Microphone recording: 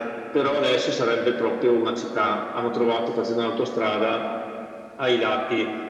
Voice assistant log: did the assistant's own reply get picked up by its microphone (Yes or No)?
Yes